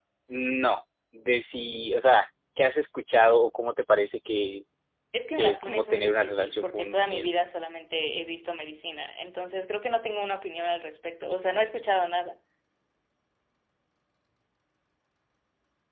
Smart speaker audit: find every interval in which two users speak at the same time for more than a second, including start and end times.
5.4-7.3

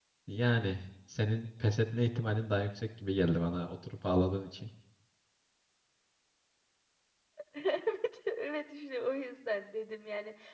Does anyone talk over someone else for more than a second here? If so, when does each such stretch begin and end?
none

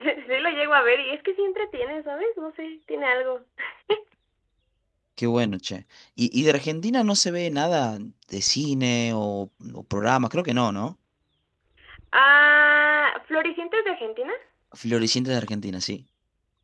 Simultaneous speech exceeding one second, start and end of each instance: none

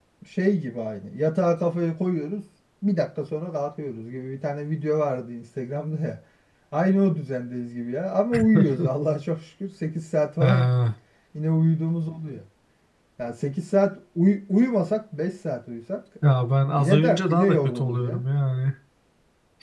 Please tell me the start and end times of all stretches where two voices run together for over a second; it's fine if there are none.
16.8-18.2

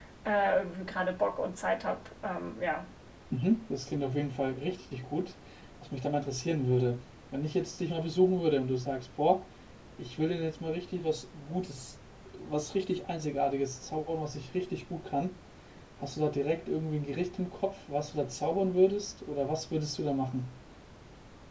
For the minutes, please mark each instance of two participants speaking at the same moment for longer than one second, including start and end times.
none

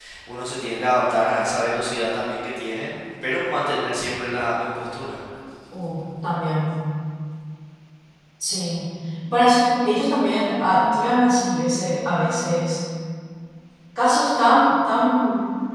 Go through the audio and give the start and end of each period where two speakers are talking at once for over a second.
none

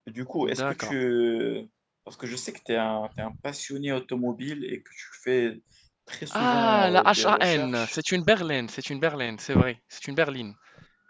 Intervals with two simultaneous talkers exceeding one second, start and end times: 6.4-8.0

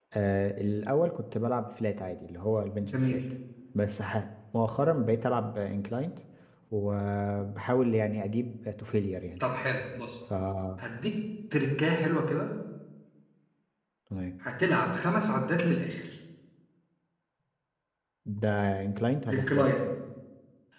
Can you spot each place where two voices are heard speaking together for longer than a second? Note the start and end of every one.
none

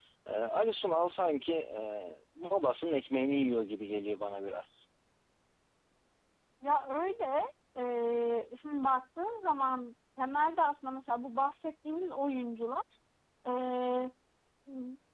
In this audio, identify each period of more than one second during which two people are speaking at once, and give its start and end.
none

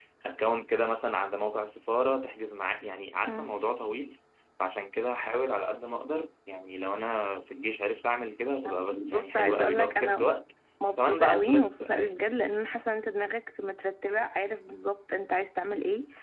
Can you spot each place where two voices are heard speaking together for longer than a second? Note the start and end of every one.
8.9-10.3, 11.0-12.2

